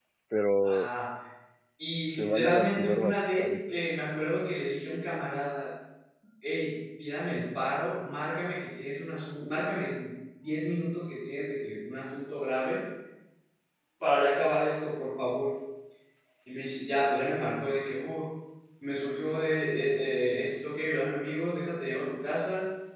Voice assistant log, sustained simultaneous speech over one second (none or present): present